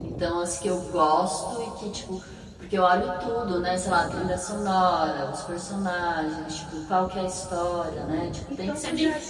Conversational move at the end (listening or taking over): taking over